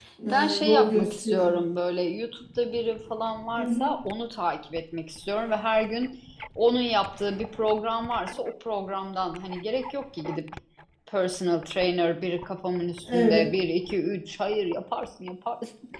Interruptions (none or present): present